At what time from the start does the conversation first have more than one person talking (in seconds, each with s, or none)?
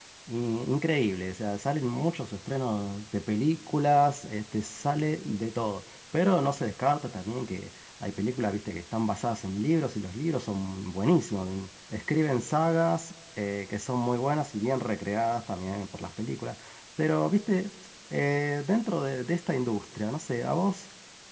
none